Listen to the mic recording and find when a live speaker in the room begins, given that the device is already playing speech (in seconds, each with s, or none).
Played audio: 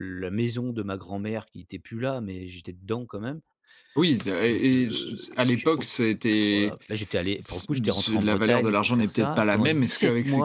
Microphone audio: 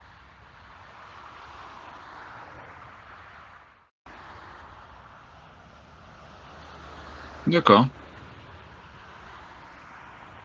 7.5 s